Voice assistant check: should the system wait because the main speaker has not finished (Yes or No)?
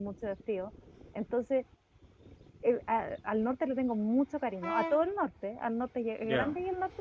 Yes